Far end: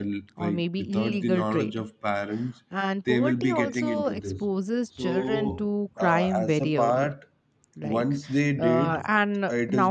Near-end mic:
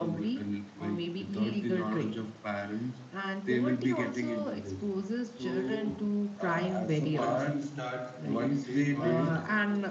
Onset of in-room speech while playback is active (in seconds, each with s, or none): 7.1 s